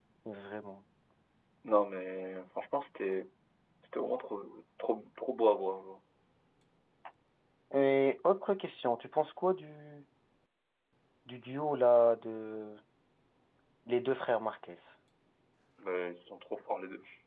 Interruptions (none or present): none